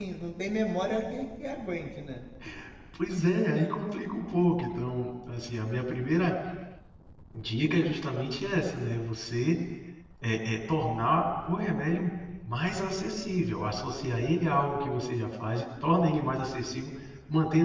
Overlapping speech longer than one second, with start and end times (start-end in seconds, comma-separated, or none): none